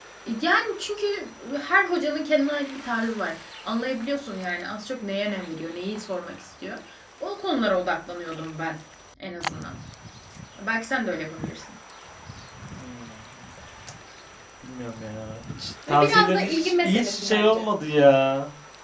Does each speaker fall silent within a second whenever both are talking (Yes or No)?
No